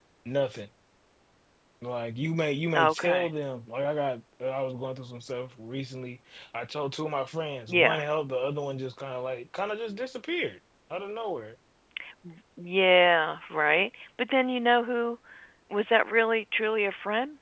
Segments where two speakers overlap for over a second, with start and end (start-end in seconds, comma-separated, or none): none